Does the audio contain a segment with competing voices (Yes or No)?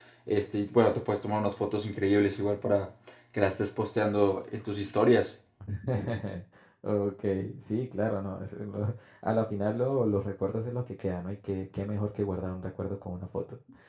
No